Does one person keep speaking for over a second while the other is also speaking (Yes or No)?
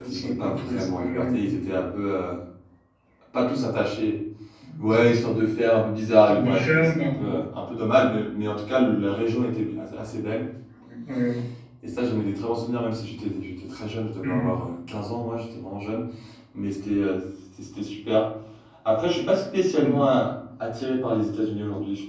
Yes